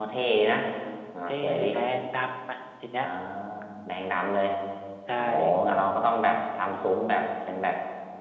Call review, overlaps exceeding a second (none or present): none